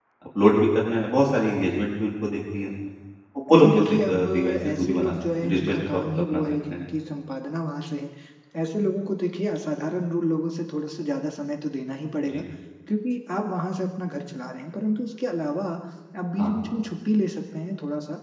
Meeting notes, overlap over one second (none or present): present